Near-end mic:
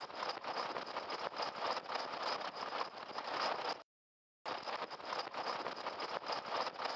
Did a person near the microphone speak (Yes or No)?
No